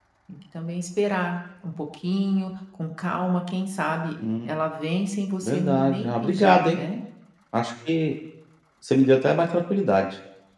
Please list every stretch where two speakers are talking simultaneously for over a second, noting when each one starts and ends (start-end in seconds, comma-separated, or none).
5.4-6.8